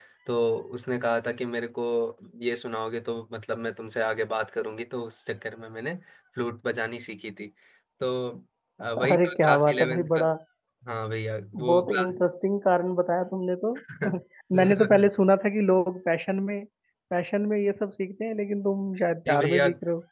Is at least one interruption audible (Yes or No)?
Yes